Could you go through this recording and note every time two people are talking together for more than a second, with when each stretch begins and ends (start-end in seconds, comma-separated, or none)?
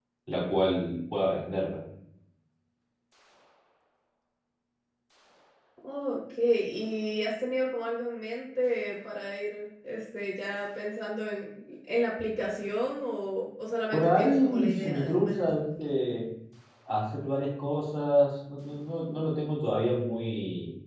13.9-15.6